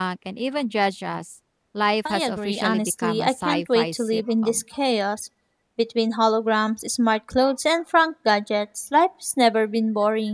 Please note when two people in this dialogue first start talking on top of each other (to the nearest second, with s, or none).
2 s